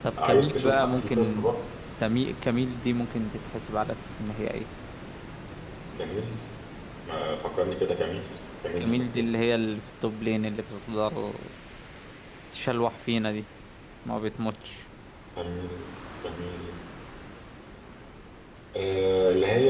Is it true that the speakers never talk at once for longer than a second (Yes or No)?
No